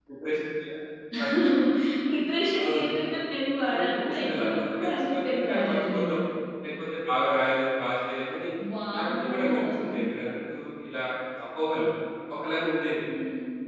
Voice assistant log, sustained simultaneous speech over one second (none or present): present